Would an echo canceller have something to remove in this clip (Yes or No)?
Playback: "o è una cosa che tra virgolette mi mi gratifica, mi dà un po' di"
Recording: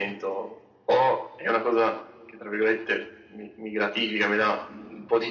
Yes